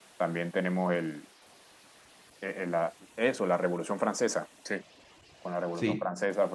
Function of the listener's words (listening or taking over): listening